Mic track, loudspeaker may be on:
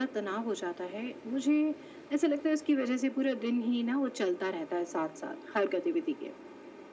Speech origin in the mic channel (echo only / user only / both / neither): echo only